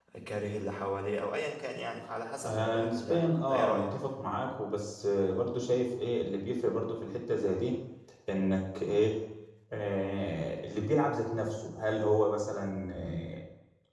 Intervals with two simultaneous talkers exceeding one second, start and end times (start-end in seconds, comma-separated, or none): 2.4-4.0